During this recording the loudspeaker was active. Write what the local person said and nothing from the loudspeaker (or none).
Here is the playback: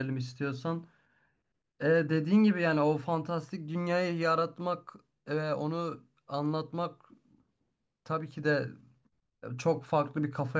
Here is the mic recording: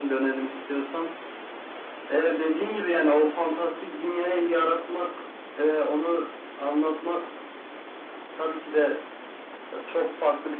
none